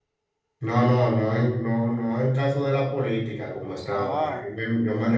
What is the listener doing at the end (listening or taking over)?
listening